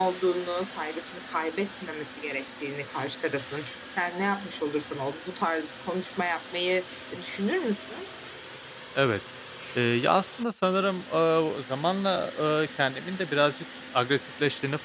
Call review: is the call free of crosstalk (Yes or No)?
Yes